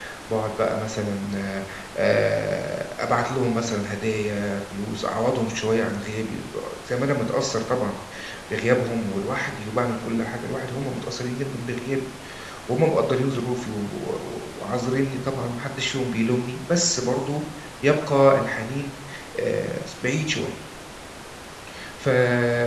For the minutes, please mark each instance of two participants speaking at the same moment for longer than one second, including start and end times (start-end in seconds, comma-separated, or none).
none